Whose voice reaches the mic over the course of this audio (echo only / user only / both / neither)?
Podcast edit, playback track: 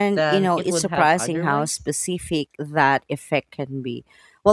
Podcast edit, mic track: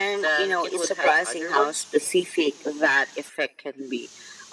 echo only